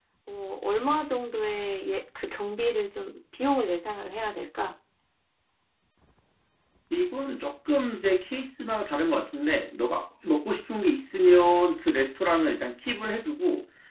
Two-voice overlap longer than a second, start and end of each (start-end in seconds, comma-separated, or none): none